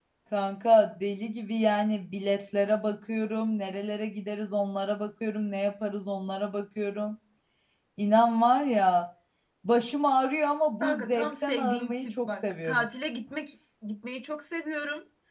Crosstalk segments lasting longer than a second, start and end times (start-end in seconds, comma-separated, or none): 10.8-12.8